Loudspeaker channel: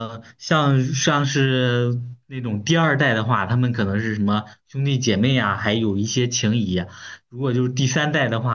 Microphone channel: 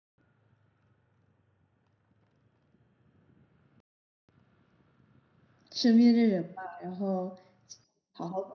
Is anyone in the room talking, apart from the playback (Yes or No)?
Yes